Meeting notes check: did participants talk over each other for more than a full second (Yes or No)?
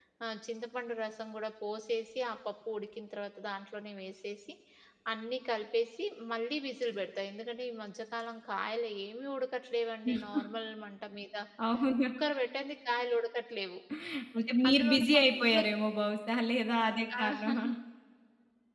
Yes